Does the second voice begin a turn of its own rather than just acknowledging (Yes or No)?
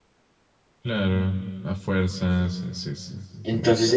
Yes